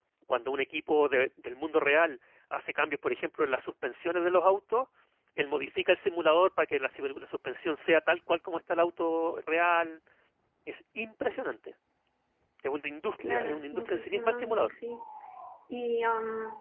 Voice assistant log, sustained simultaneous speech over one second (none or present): present